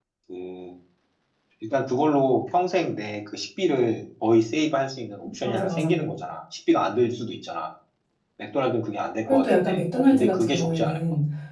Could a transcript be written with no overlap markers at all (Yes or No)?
No